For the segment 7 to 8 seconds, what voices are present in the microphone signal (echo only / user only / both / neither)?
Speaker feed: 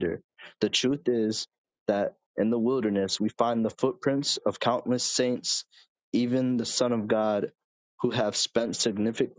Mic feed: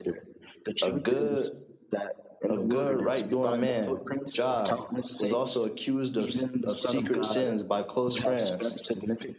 both